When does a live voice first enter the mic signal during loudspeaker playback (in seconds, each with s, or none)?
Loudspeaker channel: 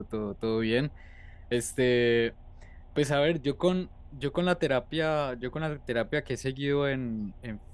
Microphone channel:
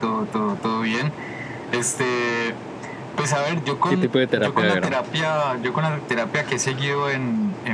3.9 s